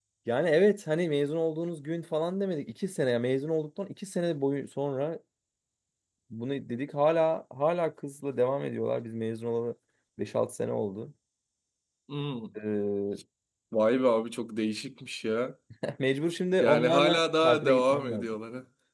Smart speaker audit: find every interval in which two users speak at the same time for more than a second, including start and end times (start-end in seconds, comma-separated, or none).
16.6-18.3